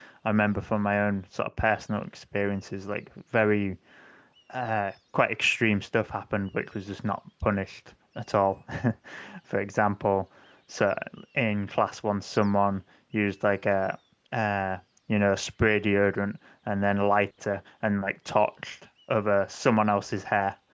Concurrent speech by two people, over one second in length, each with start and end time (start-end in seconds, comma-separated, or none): none